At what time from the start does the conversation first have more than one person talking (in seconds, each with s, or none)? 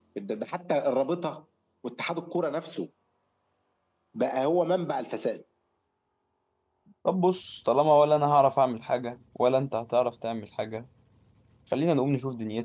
none